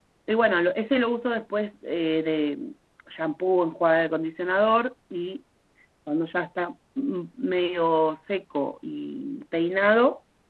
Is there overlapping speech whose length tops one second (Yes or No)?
No